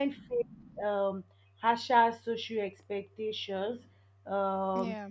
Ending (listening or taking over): listening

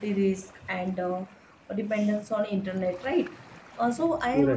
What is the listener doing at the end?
listening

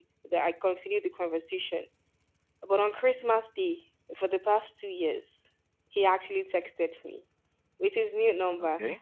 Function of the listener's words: listening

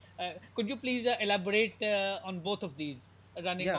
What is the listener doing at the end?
taking over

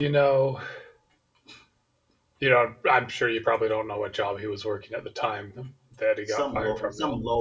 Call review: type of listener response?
taking over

